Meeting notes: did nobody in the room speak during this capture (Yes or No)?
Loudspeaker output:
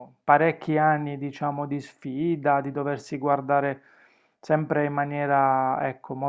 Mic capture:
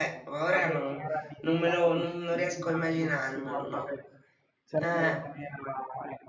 No